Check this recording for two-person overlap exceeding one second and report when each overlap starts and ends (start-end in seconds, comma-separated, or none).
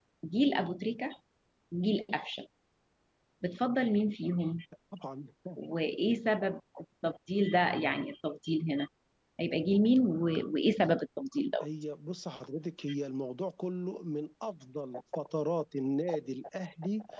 none